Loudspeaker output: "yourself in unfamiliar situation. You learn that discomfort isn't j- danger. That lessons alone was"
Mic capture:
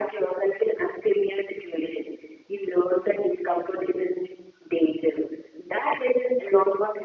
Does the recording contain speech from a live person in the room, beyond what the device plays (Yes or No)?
No